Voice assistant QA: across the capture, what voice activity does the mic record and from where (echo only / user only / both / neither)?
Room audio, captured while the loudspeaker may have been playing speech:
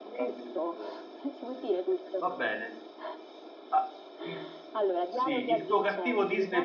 both